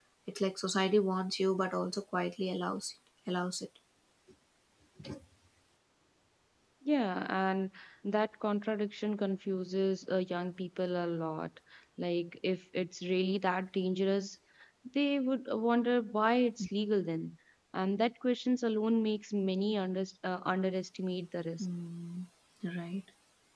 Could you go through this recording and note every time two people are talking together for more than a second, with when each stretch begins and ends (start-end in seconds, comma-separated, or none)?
none